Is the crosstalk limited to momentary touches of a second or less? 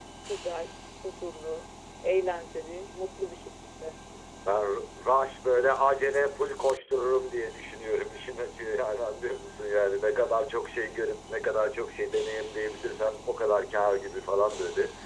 Yes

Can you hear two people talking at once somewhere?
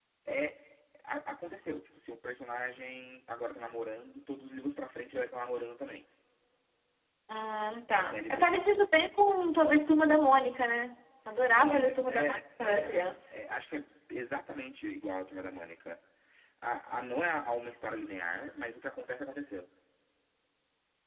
Yes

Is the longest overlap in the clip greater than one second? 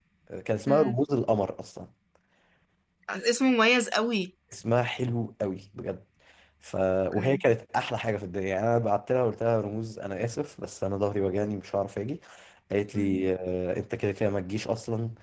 No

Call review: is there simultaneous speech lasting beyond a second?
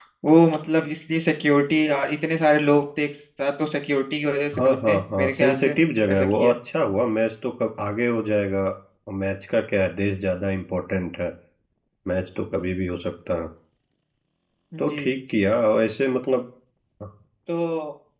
Yes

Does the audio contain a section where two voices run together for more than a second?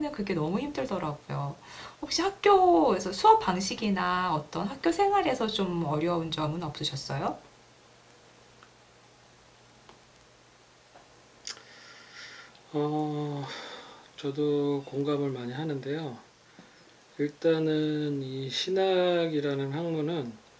No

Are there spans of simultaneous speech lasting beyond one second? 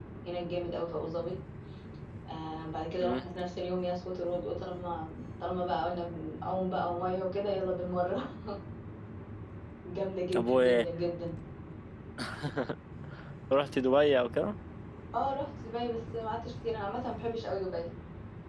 No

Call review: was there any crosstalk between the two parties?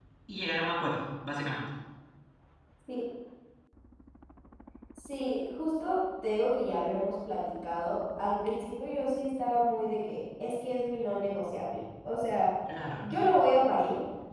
No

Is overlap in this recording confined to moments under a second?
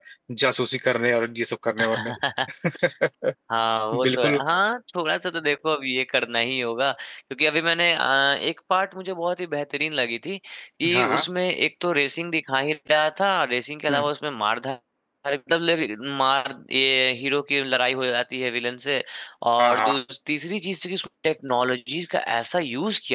Yes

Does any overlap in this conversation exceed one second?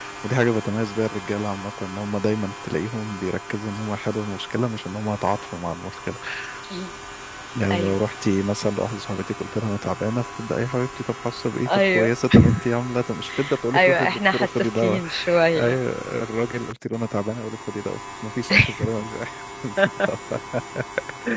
Yes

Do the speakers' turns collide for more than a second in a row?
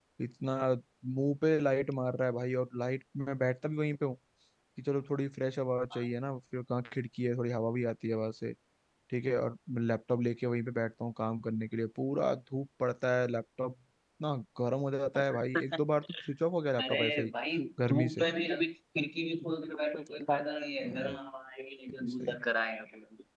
No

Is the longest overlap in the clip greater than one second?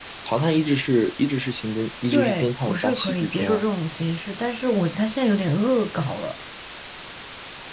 Yes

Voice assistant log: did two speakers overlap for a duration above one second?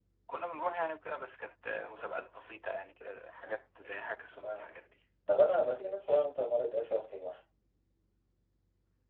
No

